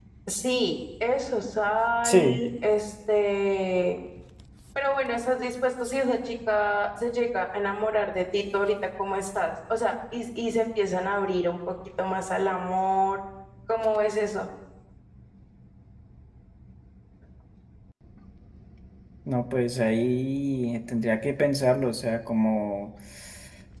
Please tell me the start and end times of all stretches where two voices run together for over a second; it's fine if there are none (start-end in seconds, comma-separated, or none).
none